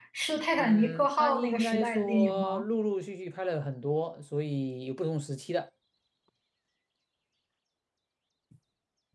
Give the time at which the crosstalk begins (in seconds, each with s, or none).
0.6 s